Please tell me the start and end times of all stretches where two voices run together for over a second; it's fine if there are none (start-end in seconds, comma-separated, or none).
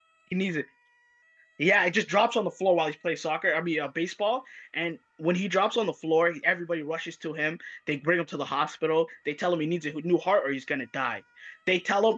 none